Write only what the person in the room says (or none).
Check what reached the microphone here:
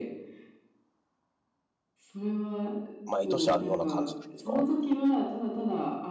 毎年あるような感じなんですか？